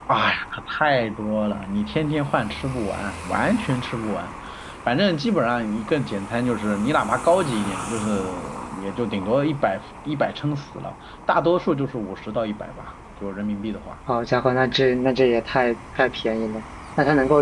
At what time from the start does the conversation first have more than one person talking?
none

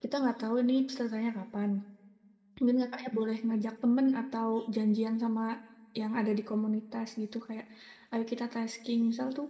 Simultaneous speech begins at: none

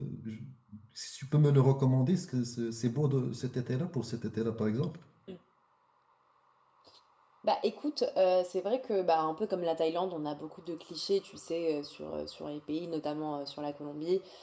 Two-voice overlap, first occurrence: none

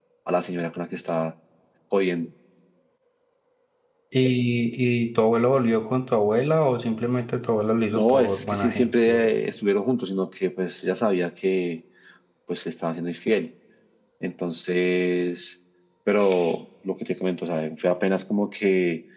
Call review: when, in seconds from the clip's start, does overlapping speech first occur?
7.9 s

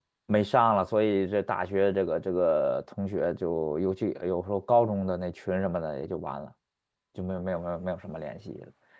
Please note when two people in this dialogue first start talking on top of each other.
none

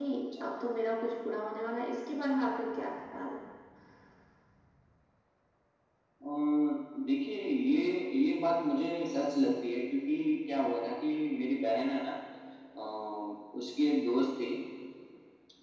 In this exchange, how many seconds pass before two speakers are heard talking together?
none

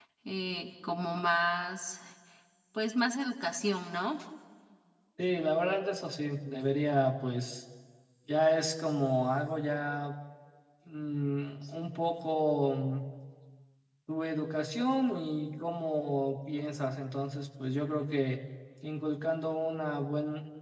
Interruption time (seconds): none

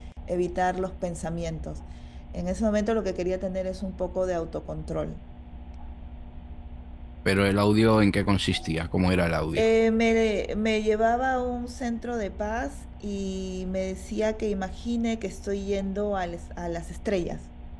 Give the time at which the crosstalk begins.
none

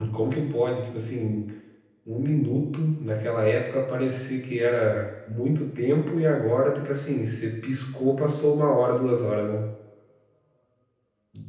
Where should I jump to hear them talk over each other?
none

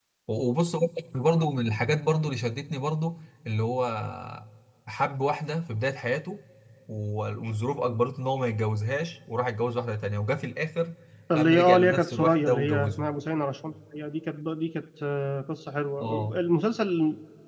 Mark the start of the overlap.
11.3 s

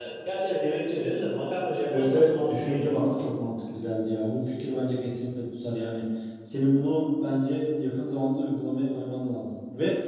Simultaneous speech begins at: 1.8 s

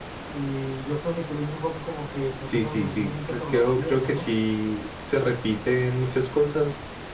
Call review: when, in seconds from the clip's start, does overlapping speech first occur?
2.4 s

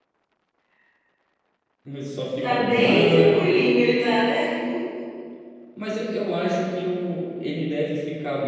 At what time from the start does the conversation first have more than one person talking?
2.4 s

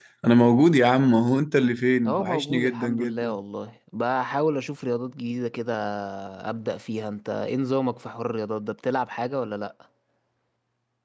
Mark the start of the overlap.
2.0 s

